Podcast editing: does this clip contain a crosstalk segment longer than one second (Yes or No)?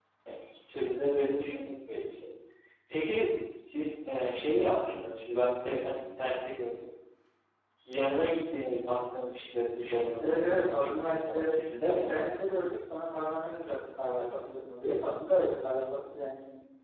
Yes